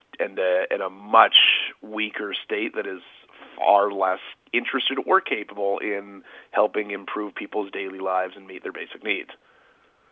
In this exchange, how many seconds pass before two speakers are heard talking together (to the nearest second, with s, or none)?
none